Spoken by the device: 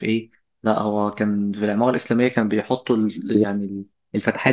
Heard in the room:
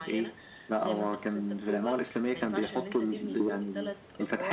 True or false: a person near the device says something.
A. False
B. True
B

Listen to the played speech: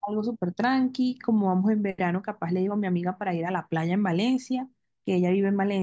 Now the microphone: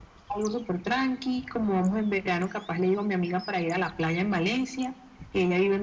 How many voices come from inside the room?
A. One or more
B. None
B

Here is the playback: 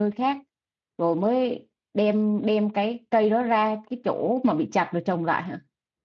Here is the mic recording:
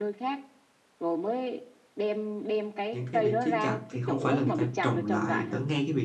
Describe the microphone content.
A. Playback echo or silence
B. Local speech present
B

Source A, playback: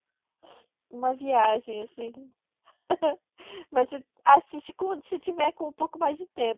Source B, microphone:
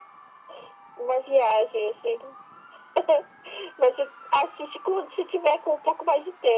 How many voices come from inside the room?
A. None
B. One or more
A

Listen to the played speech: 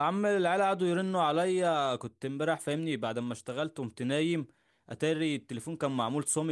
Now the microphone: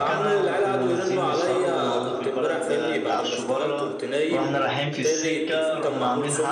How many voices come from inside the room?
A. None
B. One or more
B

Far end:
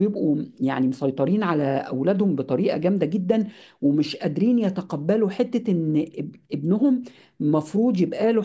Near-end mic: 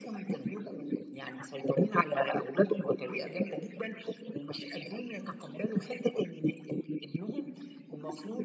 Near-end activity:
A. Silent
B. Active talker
A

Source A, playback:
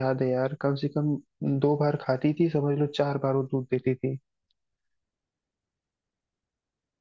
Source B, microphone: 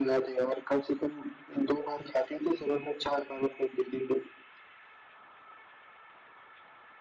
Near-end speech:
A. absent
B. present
A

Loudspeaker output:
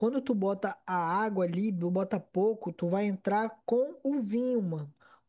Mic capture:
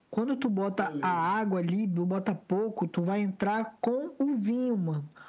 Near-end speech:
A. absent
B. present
B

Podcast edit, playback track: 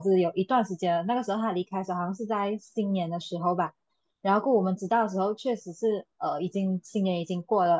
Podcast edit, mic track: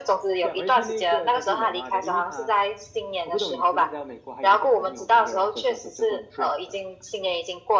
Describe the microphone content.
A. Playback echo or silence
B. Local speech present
B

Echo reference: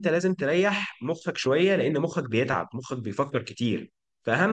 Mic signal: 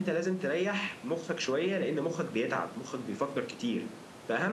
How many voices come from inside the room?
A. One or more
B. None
B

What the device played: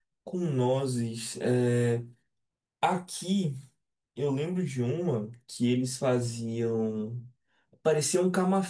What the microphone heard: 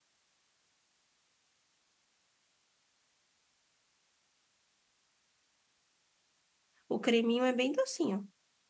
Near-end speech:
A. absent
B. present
B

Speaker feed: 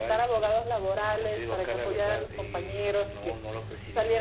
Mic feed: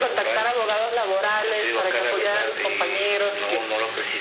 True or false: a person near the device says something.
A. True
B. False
B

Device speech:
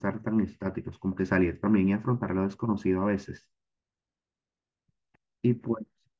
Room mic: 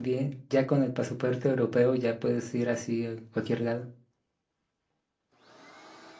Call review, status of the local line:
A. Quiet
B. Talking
B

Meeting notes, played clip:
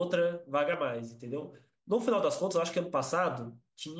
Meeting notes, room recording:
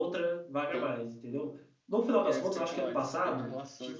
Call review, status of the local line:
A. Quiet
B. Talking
B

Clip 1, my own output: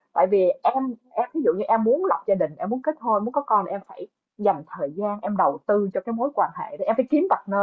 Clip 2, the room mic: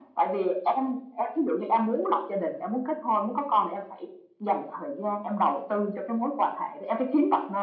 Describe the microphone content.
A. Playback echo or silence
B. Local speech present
A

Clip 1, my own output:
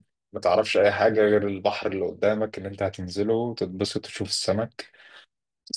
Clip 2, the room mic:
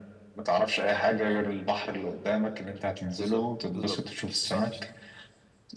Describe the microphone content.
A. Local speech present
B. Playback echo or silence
A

